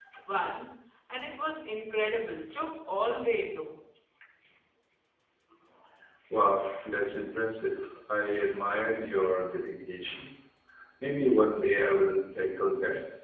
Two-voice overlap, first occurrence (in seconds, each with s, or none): none